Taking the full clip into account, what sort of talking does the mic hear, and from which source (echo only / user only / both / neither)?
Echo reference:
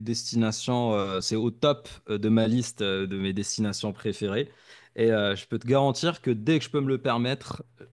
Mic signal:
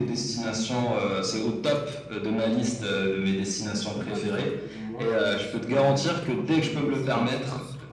both